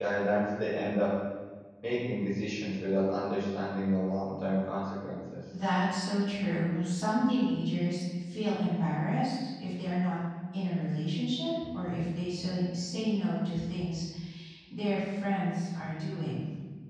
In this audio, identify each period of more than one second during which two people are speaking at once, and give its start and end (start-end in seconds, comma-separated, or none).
none